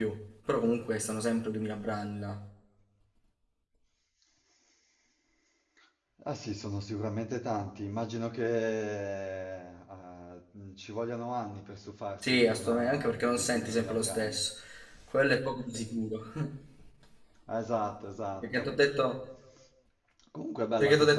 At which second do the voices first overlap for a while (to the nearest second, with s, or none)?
12 s